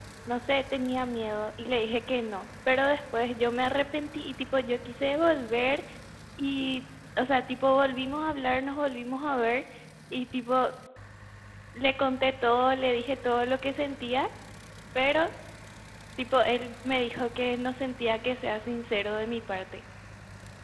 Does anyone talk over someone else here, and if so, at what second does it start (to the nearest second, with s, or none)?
none